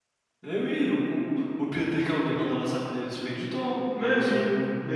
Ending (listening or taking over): taking over